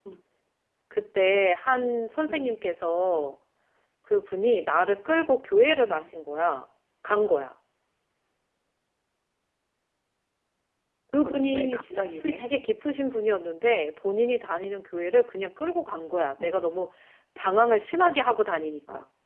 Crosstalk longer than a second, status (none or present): present